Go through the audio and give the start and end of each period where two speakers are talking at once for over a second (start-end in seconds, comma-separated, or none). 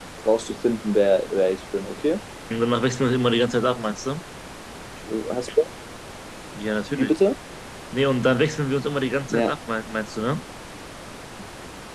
none